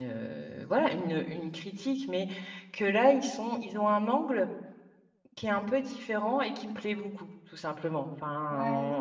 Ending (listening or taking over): listening